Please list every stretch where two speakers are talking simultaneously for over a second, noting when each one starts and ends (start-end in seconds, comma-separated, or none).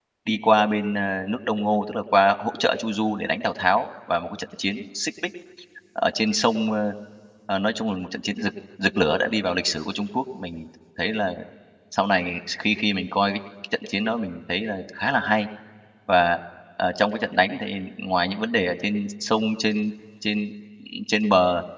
none